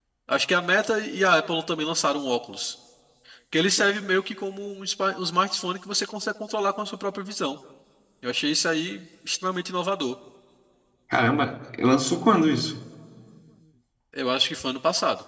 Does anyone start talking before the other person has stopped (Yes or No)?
No